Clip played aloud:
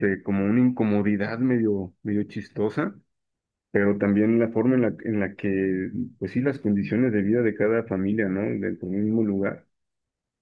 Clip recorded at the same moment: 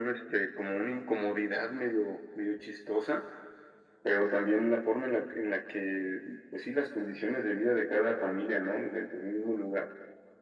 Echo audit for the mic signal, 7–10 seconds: echo only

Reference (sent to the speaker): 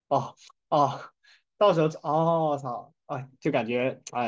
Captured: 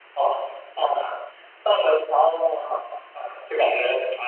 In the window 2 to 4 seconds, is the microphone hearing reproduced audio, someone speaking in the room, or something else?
echo only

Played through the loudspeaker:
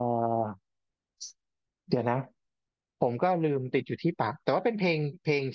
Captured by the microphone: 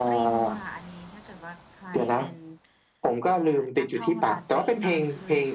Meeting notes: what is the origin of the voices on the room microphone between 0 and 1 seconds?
both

